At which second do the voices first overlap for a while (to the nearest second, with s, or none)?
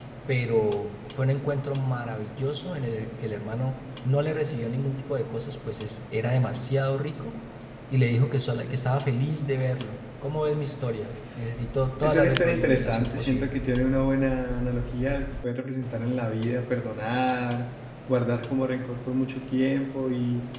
12 s